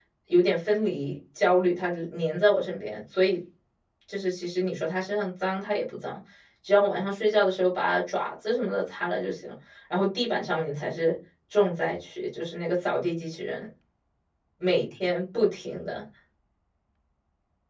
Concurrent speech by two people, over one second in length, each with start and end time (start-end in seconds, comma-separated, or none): none